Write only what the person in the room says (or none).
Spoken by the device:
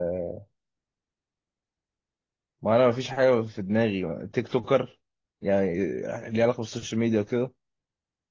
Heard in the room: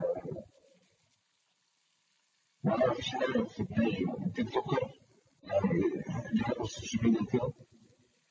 none